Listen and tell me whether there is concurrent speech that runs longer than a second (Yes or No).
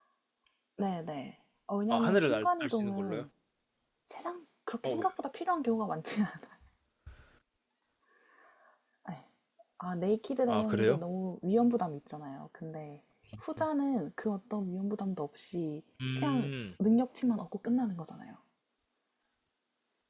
Yes